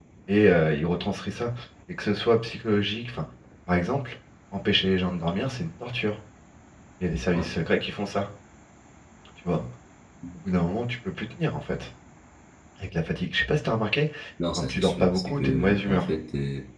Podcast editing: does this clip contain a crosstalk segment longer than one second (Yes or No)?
Yes